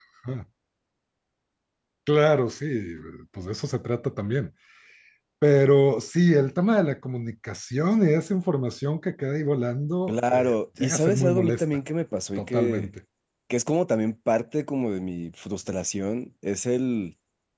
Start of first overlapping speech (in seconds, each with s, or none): 10.1 s